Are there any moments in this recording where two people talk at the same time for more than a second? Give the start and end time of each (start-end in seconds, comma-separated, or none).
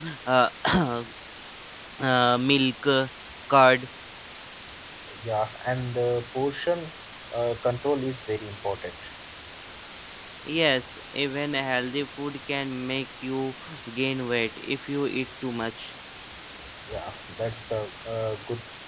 none